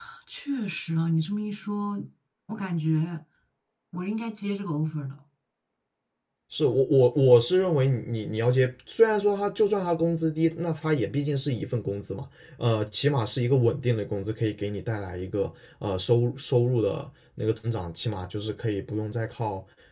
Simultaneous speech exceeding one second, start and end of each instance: none

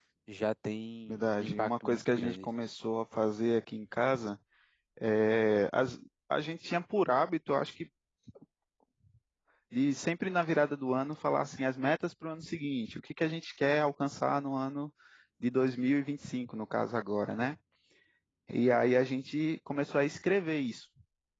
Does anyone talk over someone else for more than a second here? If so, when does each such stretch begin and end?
1.1-2.5

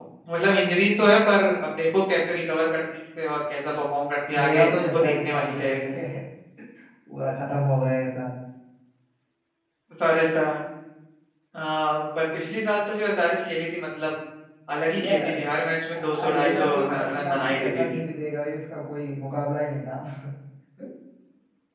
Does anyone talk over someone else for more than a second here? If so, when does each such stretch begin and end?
4.4-5.7, 15.9-18.0

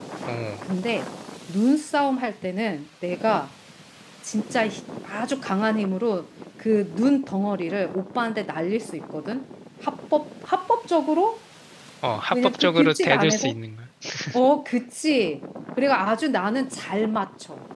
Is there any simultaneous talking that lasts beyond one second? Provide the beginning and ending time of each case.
12.3-13.6

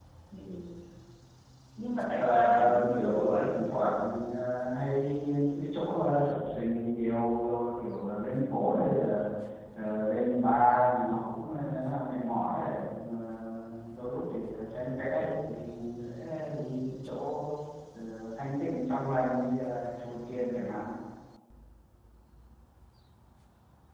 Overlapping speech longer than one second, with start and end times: 2.2-3.4

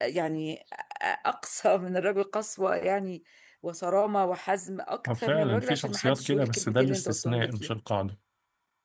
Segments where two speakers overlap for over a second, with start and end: 5.2-7.7

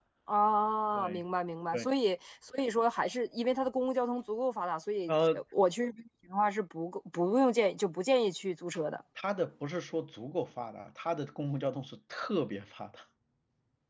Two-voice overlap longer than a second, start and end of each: none

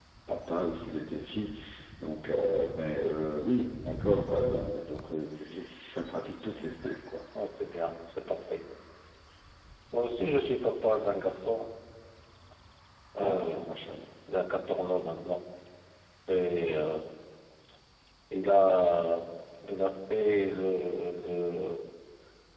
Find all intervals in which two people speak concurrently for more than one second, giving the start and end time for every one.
none

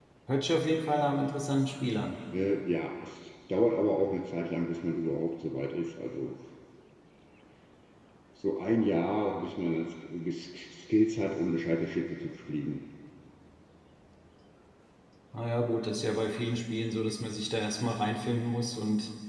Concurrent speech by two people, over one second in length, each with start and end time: none

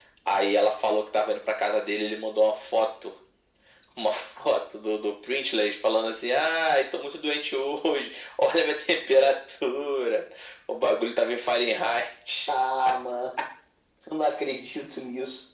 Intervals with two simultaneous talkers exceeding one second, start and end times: none

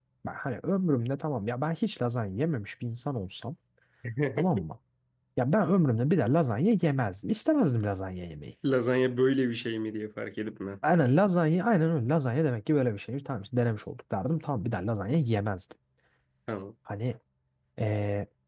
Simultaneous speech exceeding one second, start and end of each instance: none

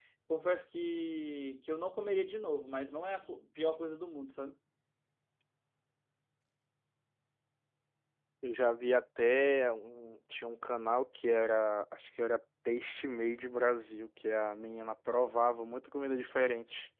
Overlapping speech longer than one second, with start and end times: none

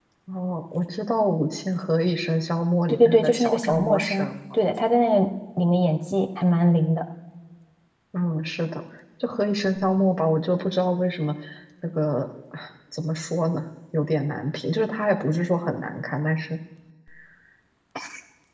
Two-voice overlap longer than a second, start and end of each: 2.9-4.3

